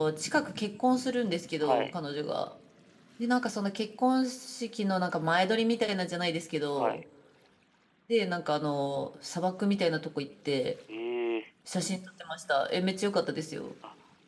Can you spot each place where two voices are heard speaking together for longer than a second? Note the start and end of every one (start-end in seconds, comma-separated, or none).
none